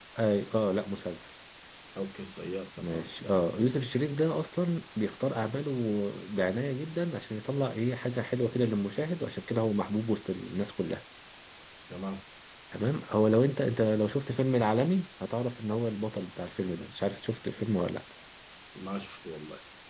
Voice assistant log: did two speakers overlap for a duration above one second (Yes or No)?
No